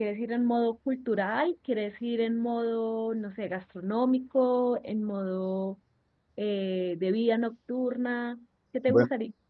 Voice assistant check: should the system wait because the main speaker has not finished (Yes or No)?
No